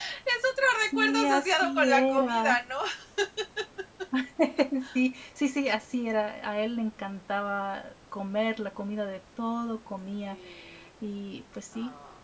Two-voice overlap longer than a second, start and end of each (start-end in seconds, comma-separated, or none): 0.9-2.4